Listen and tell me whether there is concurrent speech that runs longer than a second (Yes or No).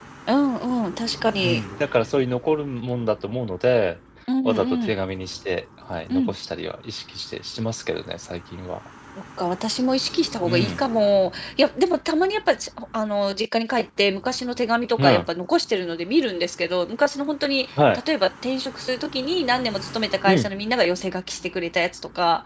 No